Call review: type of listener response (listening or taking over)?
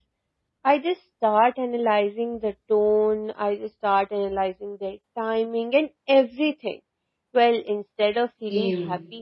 listening